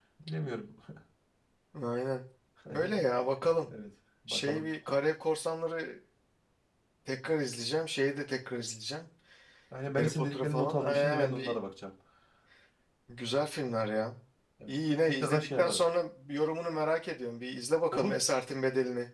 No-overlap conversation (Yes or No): No